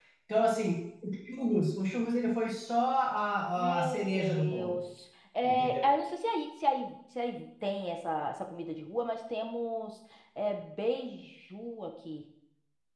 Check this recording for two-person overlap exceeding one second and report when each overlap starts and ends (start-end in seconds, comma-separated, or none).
3.6-4.8